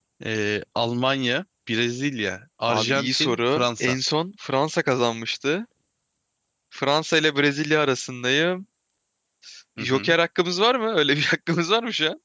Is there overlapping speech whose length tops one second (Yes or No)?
Yes